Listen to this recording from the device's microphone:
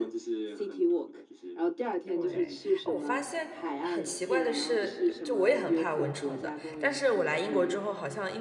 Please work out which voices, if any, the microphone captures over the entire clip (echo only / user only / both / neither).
both